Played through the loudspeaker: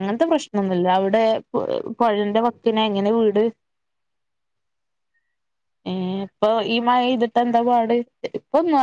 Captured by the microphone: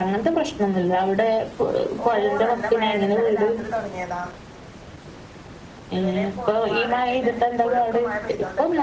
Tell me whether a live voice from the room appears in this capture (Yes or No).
Yes